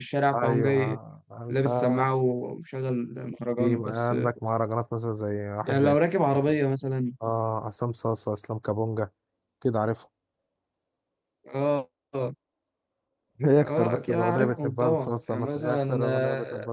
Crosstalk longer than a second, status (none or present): present